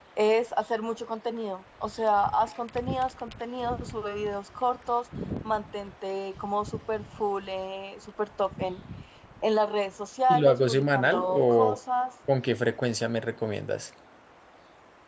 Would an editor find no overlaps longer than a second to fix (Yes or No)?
No